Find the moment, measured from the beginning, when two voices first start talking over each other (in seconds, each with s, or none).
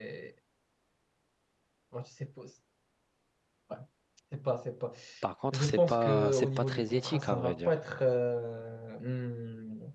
5.5 s